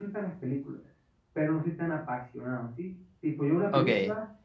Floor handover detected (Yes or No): No